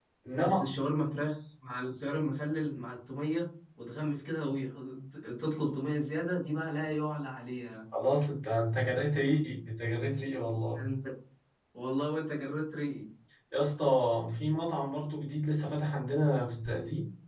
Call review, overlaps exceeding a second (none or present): none